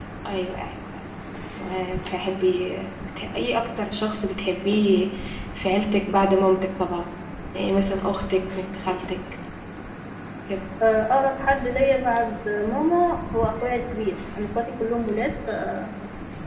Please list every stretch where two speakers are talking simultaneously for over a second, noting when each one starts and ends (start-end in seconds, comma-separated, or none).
none